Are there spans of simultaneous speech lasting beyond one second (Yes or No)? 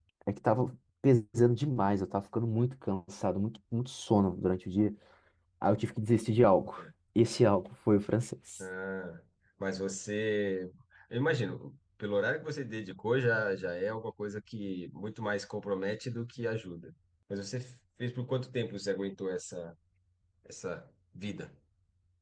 No